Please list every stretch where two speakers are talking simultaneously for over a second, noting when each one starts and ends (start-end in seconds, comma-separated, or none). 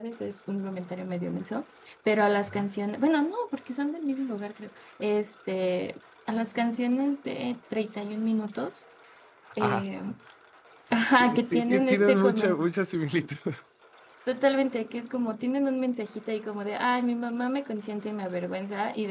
11.2-12.7